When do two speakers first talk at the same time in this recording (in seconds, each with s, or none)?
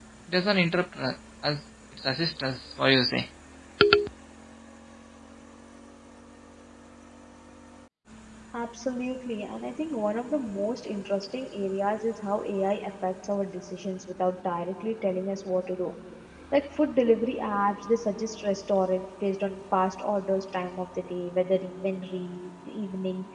none